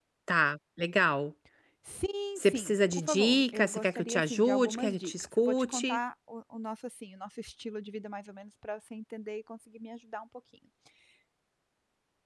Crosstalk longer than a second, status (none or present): present